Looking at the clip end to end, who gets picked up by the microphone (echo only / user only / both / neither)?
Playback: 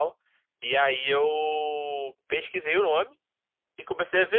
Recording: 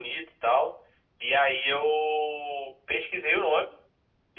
echo only